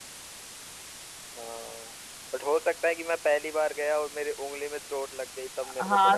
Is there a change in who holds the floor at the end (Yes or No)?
Yes